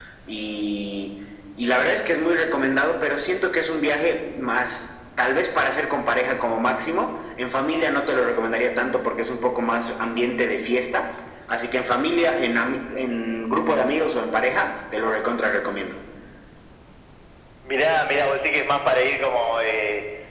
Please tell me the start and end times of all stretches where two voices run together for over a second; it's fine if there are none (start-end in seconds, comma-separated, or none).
none